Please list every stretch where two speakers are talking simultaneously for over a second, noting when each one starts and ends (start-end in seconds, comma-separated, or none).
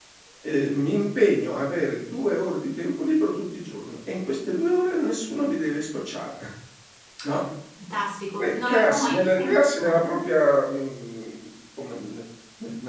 8.4-10.2